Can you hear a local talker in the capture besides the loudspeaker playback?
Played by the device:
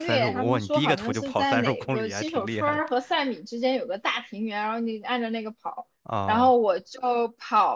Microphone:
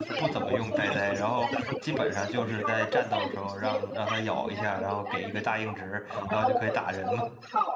Yes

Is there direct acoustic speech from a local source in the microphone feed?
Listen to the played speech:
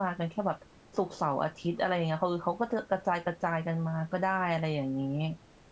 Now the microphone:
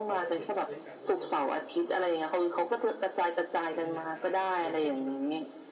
Yes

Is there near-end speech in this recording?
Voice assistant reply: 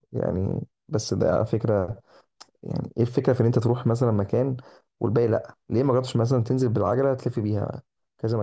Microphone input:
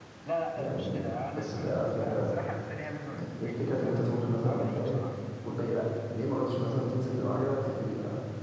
Yes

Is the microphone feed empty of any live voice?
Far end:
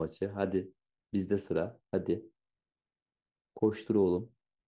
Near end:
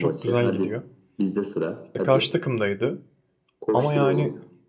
No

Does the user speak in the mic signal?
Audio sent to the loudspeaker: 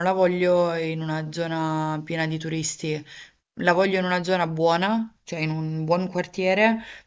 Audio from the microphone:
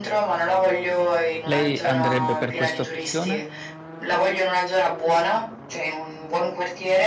Yes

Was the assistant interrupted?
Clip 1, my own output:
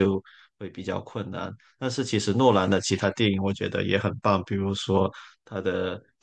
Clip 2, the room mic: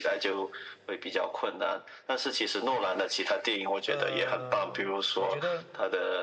Yes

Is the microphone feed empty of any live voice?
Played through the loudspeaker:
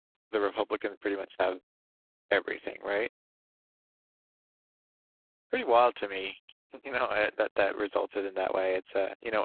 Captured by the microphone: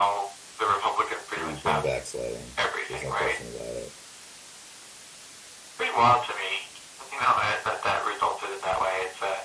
No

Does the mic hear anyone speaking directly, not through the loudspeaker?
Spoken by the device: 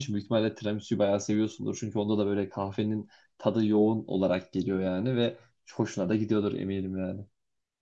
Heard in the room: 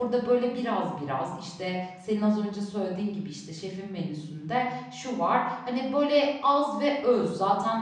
Yes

